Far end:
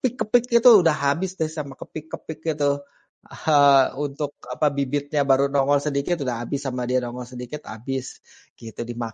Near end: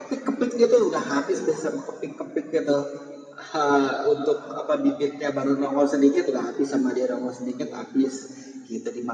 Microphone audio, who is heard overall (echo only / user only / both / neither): echo only